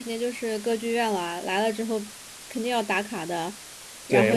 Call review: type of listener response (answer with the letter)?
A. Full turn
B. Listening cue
A